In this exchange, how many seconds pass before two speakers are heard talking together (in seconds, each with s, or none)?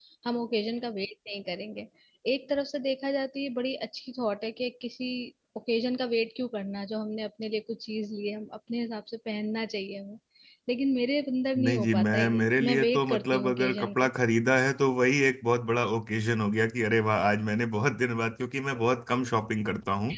11.6 s